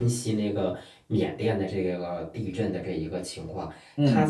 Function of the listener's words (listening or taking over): listening